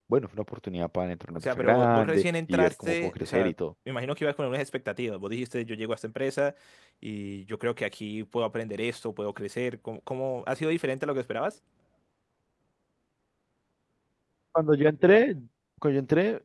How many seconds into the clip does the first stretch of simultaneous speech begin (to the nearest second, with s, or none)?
1 s